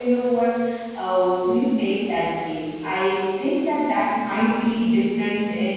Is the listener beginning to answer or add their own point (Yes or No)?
No